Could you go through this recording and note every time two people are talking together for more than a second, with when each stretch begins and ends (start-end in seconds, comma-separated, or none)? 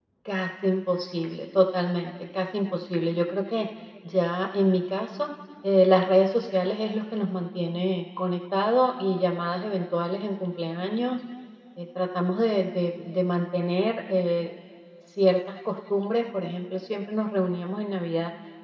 none